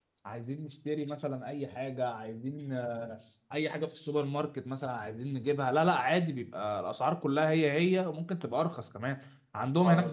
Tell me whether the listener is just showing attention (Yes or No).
Yes